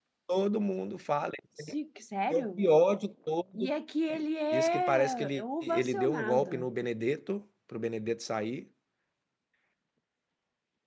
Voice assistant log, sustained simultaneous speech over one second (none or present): present